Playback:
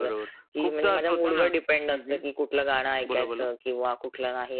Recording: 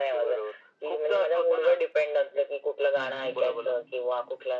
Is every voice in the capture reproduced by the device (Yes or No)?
No